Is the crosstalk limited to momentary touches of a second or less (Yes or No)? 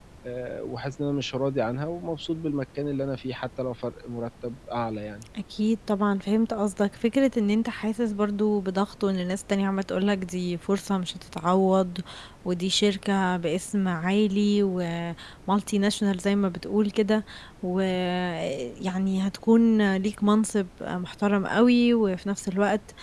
Yes